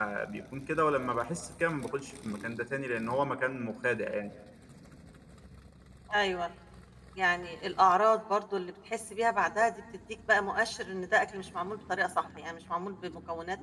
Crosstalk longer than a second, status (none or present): none